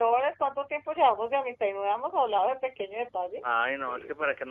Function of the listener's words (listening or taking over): taking over